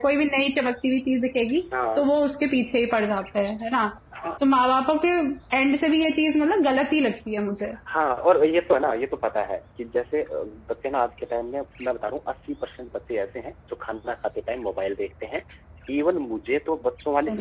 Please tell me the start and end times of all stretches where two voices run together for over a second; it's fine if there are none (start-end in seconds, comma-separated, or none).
none